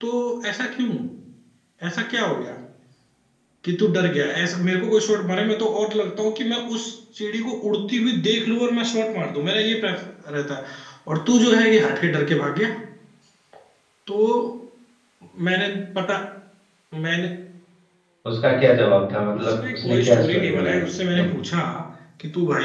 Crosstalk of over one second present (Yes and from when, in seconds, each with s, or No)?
Yes, from 19.3 s